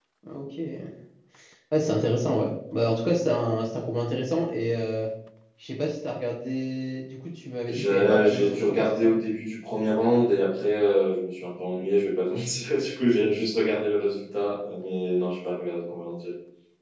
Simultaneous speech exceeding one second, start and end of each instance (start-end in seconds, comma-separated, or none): 7.7-9.1